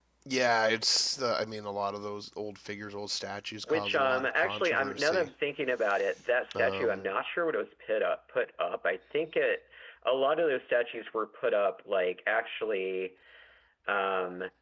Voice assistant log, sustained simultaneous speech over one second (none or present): present